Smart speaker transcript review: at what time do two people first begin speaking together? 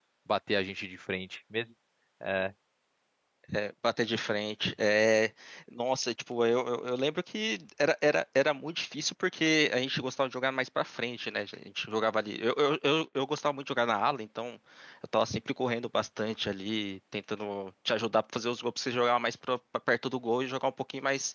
none

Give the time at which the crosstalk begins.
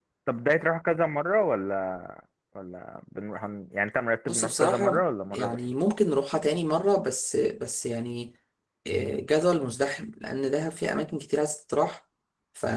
4.3 s

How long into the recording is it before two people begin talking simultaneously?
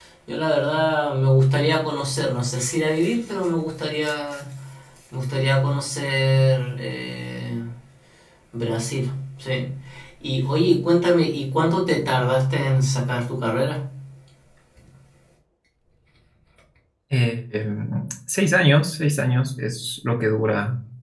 none

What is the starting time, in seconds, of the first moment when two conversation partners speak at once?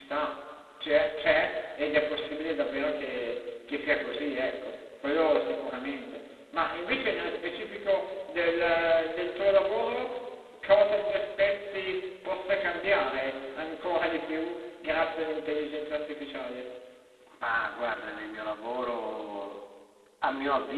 none

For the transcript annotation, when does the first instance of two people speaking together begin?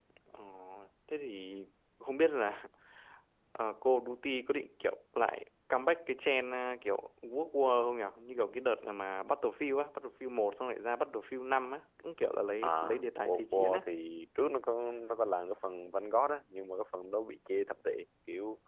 12.6 s

